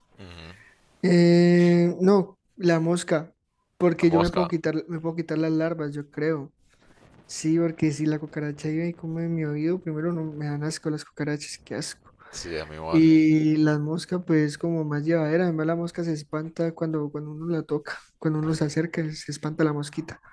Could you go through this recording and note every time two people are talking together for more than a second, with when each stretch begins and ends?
none

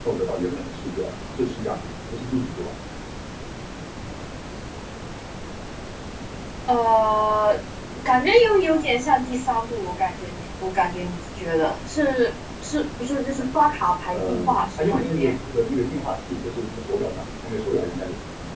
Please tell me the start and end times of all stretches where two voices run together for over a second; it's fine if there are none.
14.1-15.3

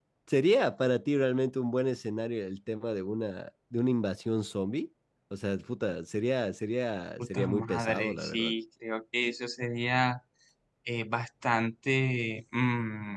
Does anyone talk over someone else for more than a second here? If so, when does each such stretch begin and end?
7.2-8.5

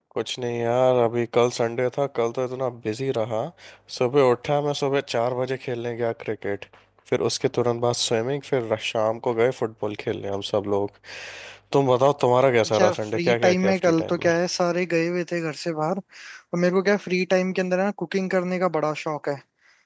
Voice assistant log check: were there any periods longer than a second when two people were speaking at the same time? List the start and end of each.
12.8-14.2

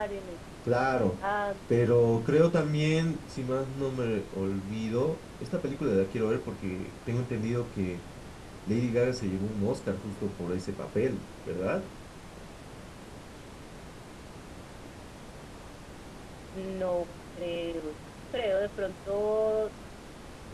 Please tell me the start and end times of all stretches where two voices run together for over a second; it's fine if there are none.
none

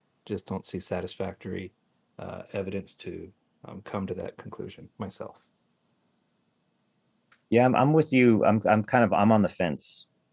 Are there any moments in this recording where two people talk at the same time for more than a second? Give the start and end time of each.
none

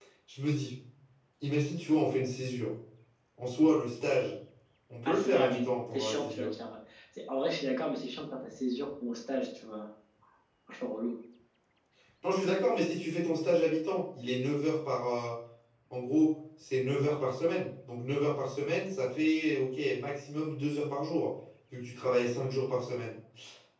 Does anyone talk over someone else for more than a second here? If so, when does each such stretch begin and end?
5.0-6.5

